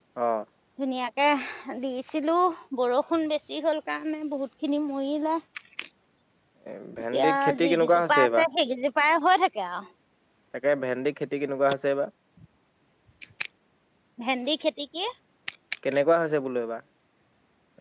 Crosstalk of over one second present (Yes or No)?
Yes